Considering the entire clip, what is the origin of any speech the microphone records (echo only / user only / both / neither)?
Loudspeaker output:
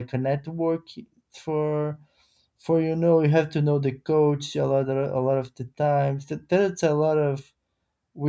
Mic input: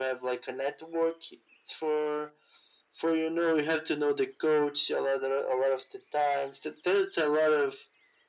echo only